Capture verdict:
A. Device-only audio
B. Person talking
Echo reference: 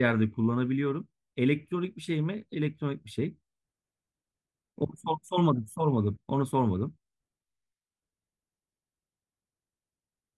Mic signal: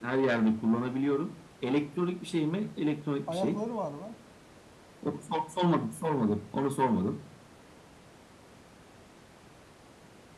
B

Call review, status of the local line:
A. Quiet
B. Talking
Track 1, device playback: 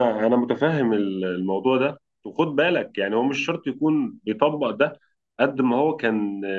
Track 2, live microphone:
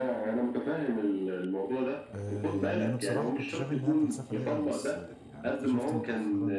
B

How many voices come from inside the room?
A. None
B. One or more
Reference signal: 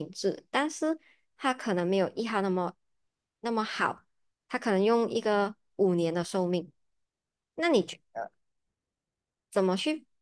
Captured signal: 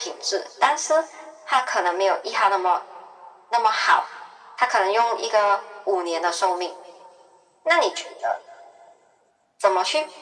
A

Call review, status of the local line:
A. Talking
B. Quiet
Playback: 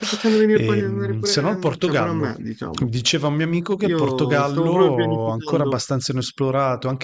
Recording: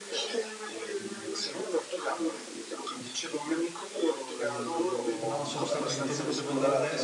A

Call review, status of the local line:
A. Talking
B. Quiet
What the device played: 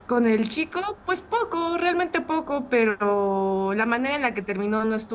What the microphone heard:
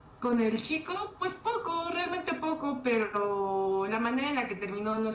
B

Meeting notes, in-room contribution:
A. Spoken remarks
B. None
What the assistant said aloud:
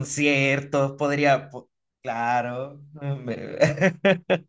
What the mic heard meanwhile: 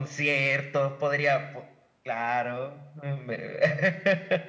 B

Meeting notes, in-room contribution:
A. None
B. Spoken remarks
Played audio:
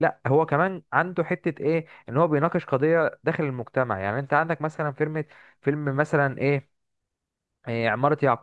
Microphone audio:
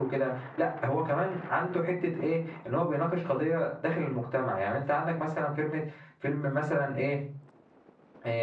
A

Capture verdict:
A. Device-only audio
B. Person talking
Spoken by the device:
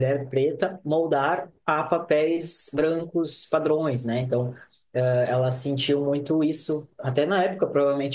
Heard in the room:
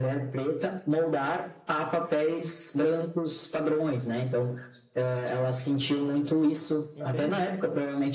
B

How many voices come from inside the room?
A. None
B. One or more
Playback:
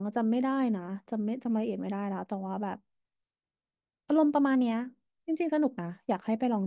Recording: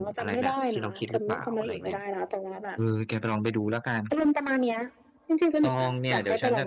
B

